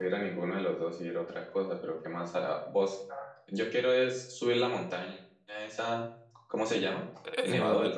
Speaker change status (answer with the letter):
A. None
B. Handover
B